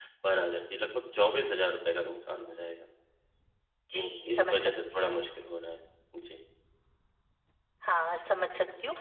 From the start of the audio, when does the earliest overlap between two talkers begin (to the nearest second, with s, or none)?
4 s